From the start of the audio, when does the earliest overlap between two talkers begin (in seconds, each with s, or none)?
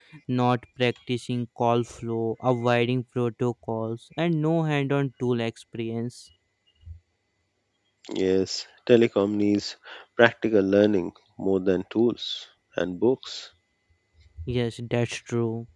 none